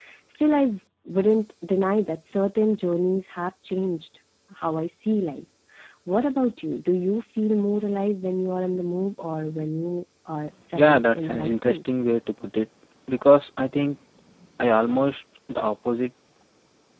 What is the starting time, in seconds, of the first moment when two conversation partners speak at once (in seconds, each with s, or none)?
10.7 s